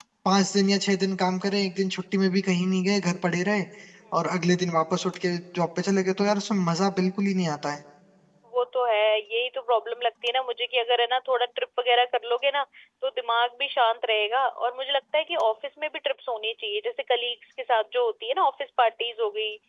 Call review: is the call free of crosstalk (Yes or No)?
Yes